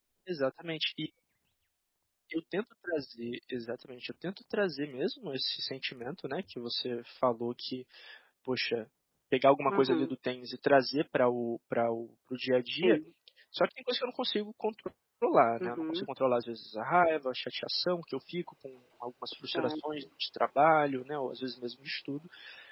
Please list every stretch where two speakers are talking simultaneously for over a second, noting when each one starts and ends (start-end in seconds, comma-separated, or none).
none